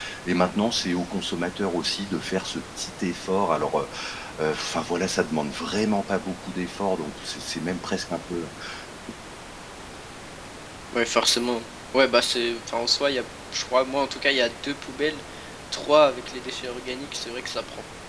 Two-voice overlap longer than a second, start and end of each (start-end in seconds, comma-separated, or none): none